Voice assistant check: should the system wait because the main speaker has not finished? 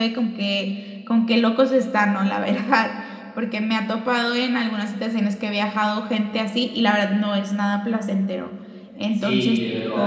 No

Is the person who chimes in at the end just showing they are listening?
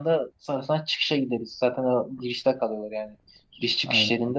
Yes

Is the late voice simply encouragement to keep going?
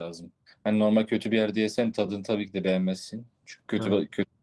Yes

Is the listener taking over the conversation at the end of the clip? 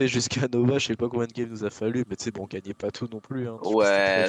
Yes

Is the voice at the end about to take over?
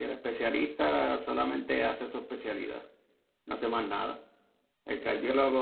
No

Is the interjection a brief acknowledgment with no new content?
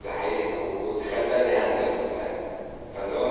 Yes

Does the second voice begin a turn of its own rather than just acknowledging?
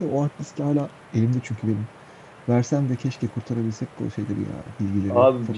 Yes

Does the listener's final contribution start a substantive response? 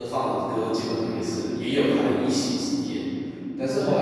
No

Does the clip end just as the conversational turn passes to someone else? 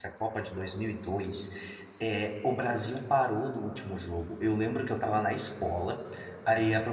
No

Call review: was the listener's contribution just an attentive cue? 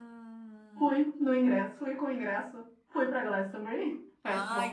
No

